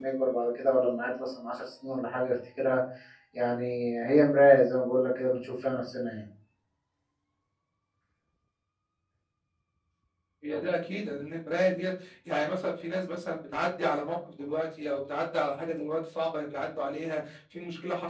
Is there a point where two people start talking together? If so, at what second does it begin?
none

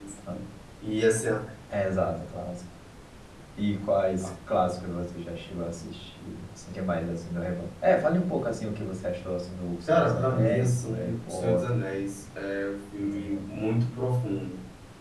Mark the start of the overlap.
9.9 s

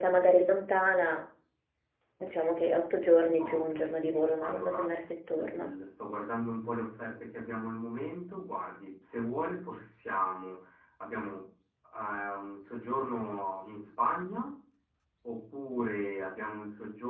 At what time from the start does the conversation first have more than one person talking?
3.4 s

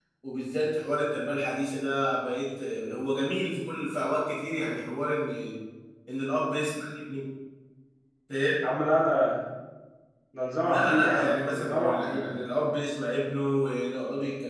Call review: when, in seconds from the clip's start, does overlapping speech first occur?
10.6 s

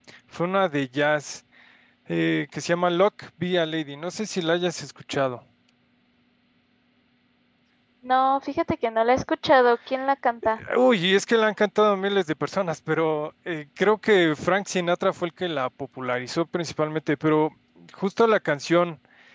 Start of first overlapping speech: none

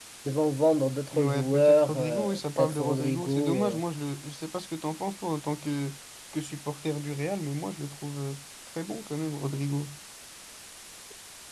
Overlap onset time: 1.1 s

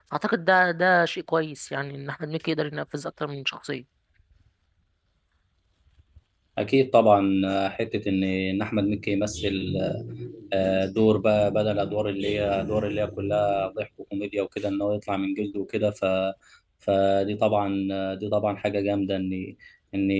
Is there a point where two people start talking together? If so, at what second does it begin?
none

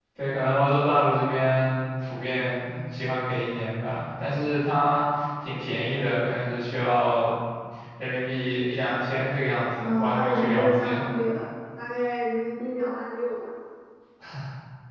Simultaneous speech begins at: 9.8 s

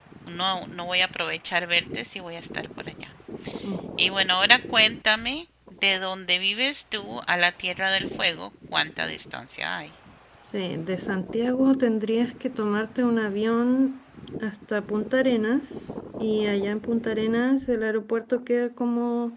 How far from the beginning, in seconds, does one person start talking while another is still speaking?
none

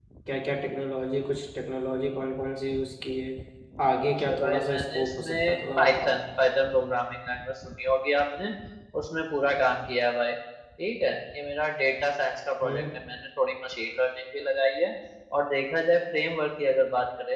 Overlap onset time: 4.2 s

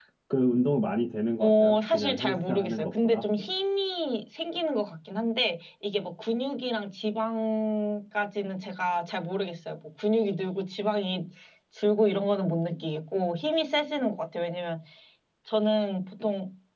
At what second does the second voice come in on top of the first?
1.4 s

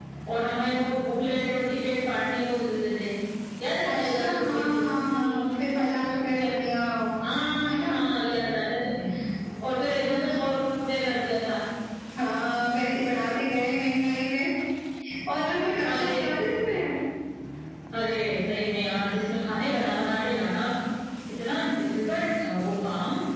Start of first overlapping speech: 3.8 s

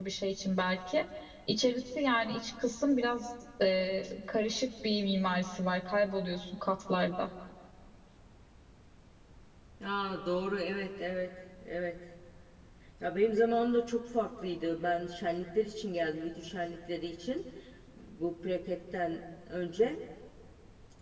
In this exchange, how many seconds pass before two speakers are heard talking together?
none

